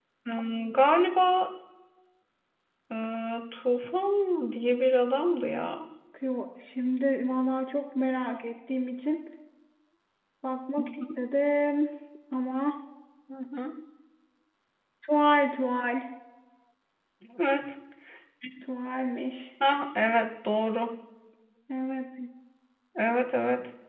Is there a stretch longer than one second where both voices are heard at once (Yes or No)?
No